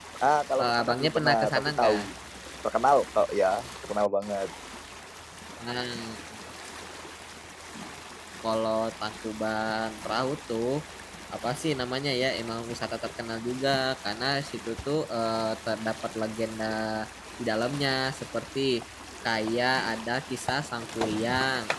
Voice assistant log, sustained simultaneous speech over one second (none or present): present